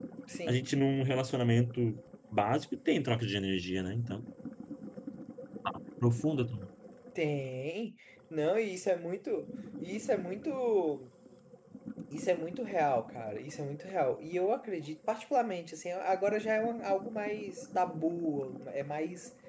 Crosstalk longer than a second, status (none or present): none